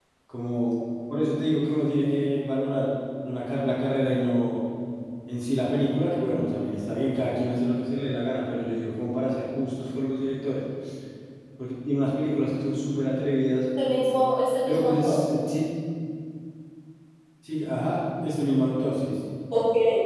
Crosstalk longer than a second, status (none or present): none